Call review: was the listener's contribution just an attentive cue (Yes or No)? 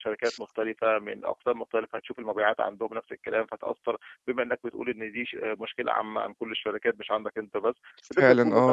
Yes